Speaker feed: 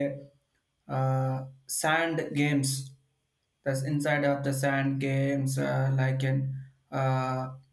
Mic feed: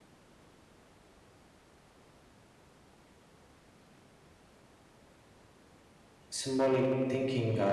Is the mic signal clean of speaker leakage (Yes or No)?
Yes